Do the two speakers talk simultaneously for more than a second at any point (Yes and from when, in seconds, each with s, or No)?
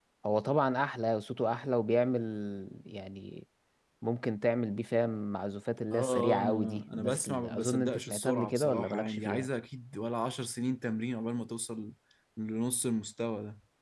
Yes, from 5.9 s